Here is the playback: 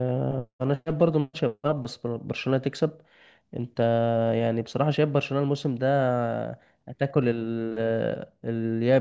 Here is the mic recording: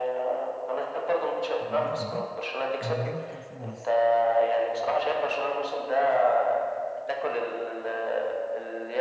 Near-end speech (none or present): present